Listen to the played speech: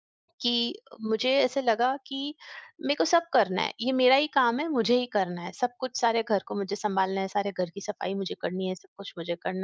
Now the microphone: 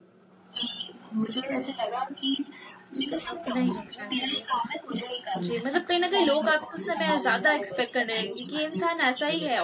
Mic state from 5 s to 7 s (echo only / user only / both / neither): both